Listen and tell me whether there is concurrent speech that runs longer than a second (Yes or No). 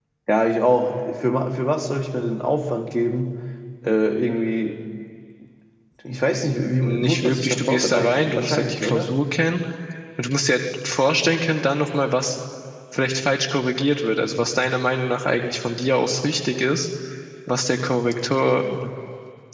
Yes